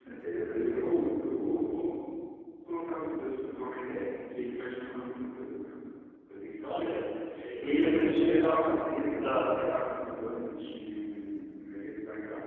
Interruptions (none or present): present